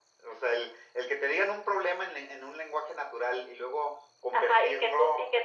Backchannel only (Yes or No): No